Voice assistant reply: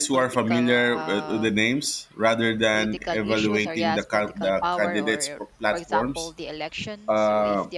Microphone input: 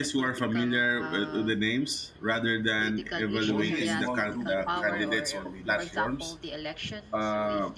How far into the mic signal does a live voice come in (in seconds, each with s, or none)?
3.5 s